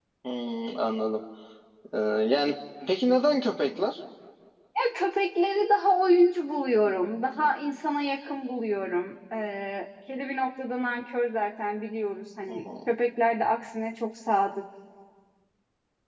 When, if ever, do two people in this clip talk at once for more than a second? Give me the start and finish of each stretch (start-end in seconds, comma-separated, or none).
none